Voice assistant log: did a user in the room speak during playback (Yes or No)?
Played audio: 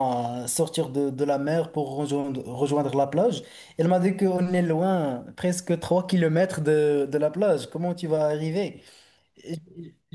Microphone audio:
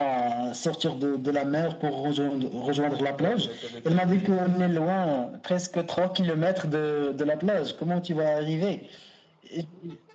Yes